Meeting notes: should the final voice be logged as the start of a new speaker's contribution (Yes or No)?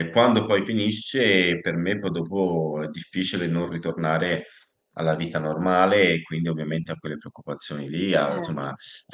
No